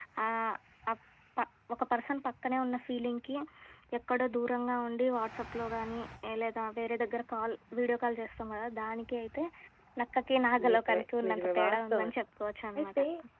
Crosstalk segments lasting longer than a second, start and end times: 10.7-12.1

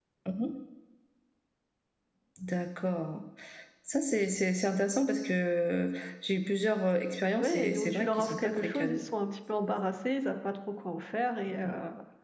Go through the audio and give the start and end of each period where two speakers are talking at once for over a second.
7.4-9.0

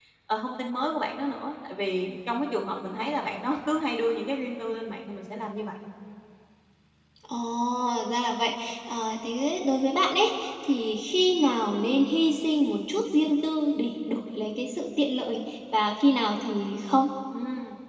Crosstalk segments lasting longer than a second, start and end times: none

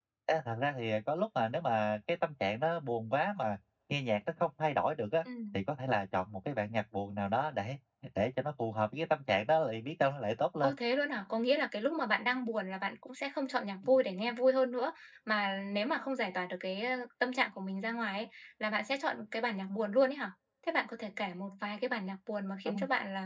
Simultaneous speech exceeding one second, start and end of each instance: none

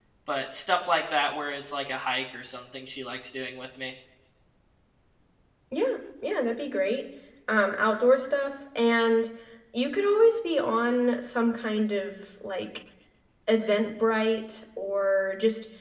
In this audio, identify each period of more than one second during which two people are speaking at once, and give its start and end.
none

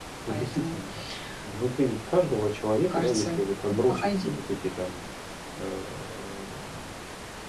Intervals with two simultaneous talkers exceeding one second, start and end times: none

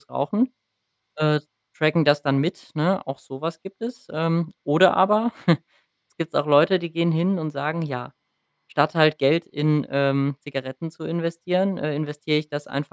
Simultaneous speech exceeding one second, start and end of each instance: none

